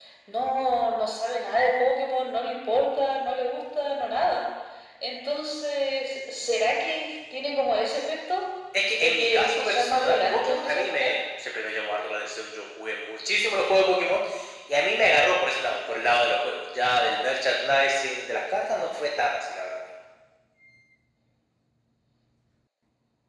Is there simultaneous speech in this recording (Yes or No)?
Yes